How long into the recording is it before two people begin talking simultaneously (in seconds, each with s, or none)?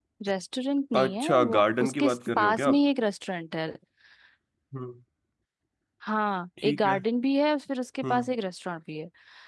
1.0 s